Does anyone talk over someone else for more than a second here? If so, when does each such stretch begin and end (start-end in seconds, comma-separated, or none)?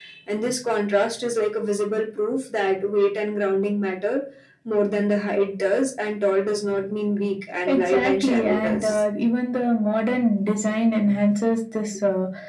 7.7-9.0